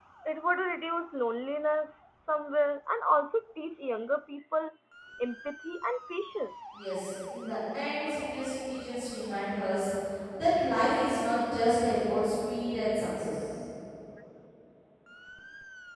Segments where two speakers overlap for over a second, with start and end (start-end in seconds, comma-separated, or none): none